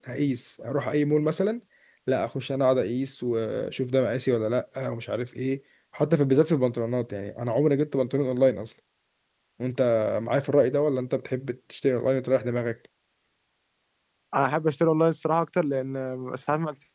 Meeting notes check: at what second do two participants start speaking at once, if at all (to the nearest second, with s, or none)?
none